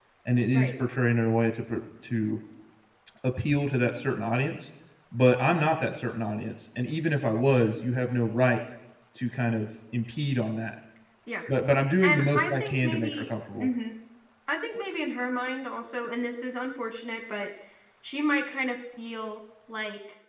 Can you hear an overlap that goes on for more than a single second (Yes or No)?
Yes